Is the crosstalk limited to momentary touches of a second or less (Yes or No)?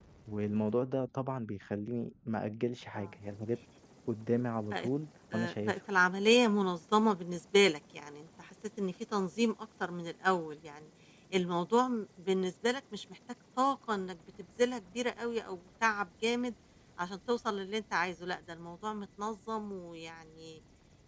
Yes